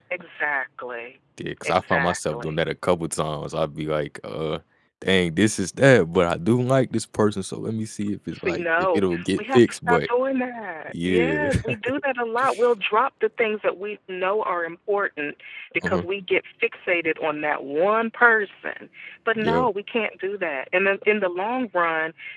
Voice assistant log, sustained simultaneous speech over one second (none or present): present